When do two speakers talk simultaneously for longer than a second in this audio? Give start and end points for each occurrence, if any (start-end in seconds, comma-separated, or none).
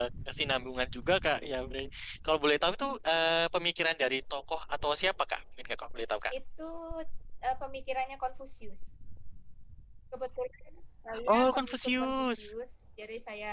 11.3-12.5